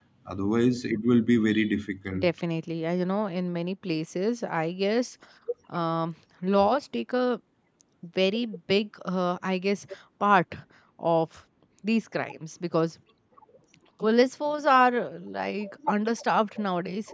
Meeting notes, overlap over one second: none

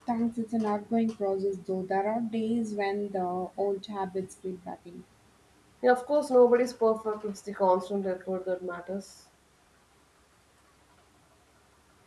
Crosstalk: none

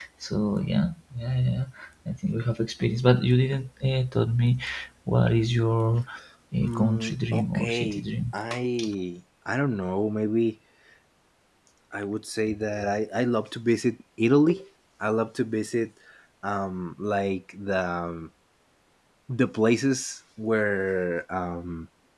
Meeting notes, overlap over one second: present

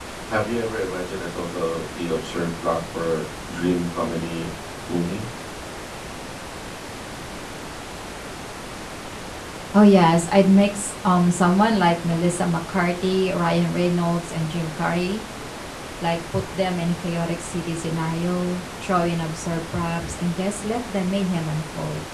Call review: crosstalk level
none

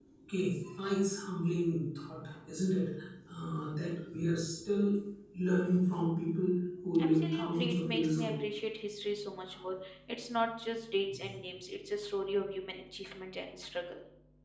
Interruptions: present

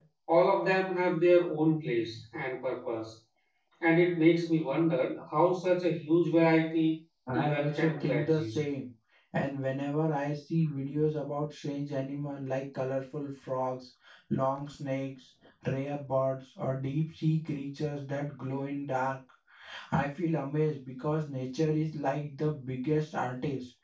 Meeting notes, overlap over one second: present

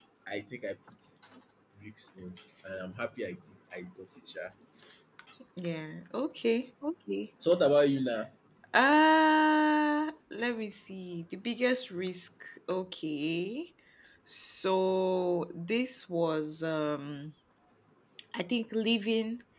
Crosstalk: none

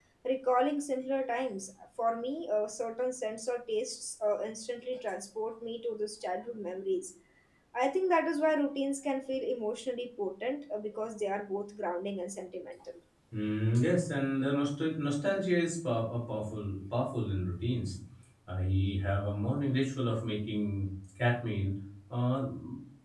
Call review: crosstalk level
none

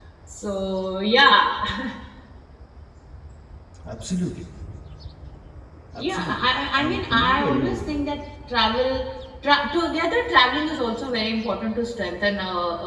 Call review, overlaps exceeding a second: present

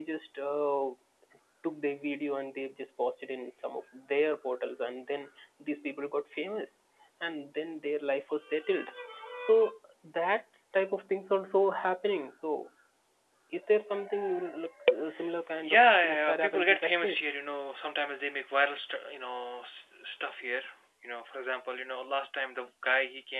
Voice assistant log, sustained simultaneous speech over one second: present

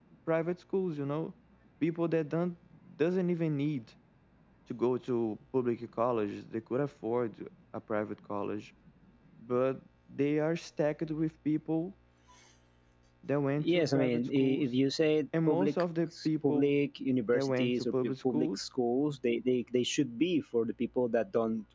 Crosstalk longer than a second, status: present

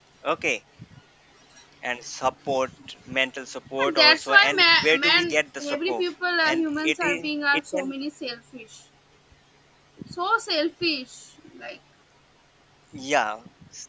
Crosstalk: present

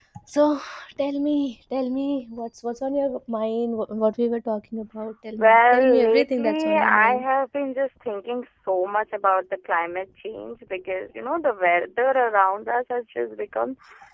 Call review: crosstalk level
present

